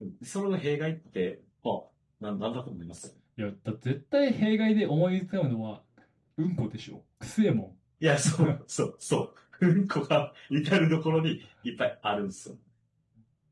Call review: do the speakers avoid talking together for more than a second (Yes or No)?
Yes